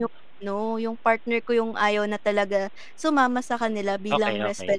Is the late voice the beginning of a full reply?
No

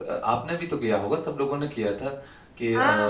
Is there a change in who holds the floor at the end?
No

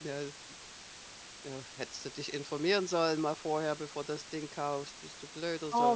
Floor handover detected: Yes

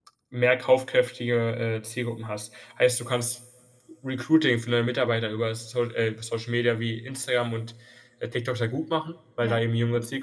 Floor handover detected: No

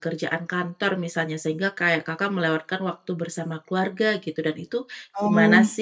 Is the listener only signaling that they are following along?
No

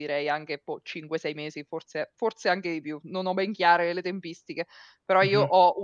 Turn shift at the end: No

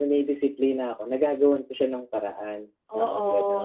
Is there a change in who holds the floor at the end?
Yes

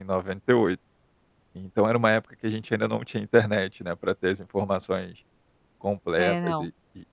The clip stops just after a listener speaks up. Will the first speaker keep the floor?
Yes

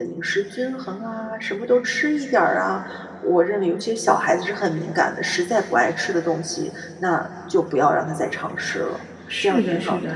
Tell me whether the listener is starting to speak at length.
Yes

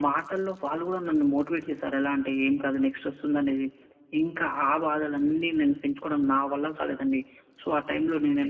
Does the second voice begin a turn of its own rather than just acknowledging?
No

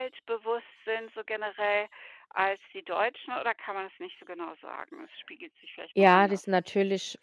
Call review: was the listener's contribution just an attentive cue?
No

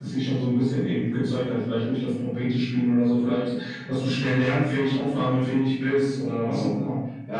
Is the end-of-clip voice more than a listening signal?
Yes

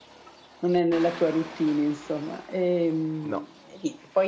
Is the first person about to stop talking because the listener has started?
No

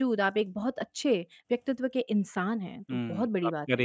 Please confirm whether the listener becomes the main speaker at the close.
Yes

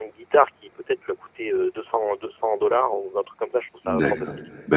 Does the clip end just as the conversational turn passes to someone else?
Yes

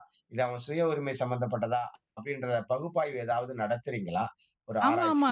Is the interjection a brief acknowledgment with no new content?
No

